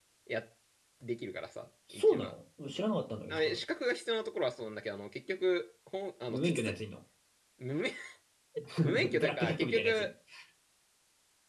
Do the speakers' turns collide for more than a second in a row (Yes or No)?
Yes